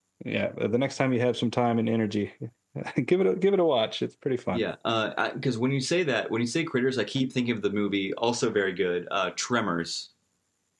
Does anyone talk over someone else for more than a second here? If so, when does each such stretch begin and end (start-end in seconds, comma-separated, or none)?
none